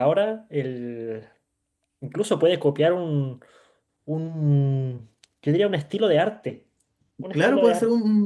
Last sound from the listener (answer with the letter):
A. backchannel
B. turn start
B